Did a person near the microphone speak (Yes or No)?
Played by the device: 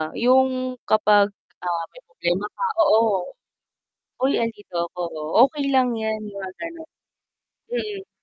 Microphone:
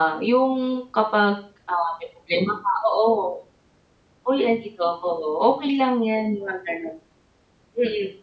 No